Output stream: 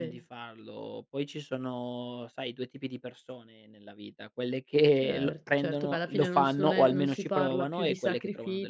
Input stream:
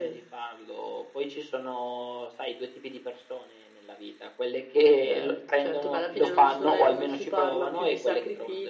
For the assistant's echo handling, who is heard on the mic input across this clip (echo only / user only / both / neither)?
echo only